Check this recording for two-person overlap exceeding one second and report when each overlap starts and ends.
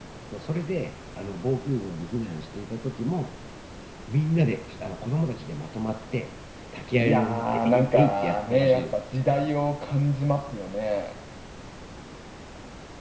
7.0-9.0

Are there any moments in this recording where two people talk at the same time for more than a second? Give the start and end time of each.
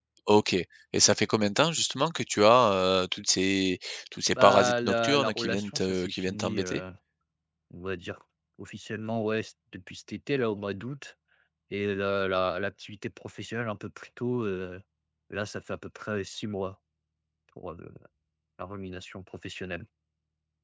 4.3-6.8

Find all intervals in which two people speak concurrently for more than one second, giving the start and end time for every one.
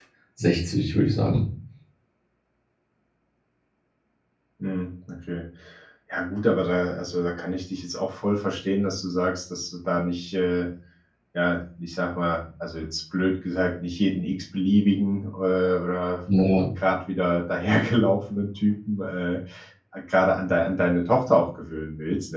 none

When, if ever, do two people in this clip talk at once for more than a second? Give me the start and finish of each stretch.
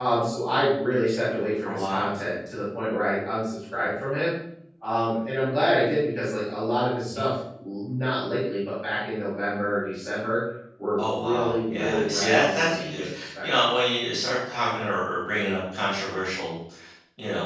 11.0-13.7

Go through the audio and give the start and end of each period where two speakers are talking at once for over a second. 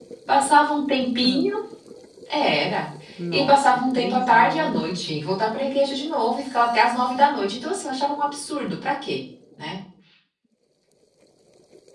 3.3-4.9

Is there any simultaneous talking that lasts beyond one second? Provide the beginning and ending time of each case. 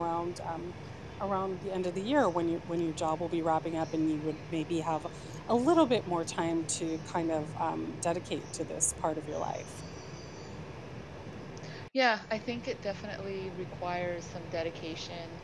none

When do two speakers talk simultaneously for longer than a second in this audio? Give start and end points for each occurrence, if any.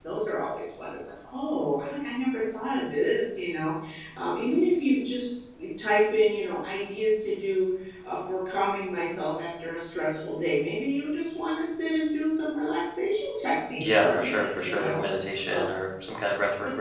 13.8-15.0

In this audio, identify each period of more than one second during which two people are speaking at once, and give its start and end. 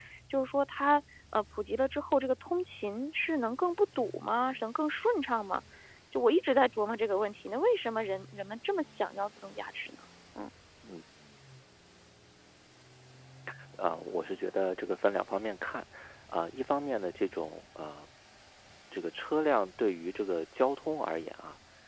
none

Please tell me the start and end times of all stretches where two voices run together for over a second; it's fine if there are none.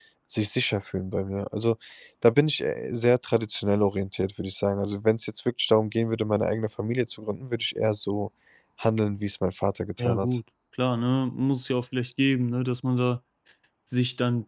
none

